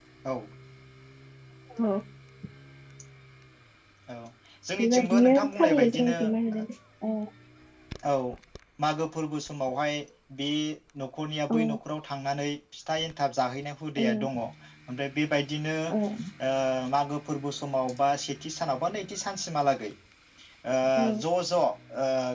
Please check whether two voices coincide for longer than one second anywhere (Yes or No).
Yes